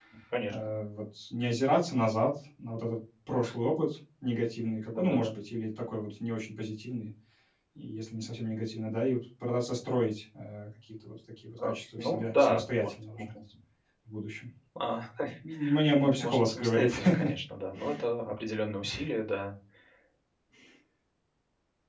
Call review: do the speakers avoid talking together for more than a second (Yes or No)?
No